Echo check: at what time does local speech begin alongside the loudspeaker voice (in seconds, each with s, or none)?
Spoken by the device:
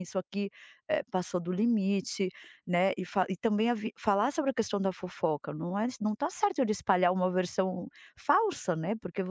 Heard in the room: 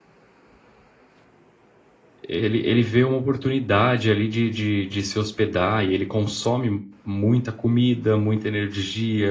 2.3 s